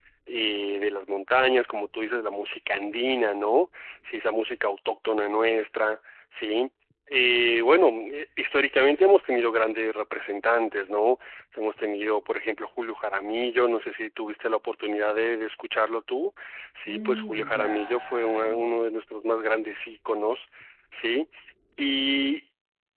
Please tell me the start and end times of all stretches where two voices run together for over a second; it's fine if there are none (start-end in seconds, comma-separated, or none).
16.9-18.8